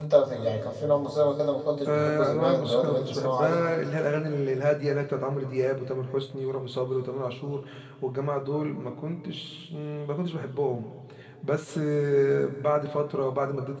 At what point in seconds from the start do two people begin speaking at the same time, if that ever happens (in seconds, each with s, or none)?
1.8 s